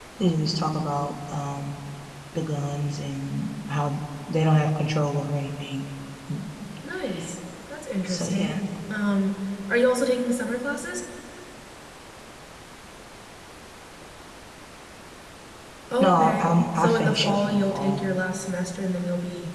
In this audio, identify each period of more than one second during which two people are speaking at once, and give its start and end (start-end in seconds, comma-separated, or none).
16.0-18.0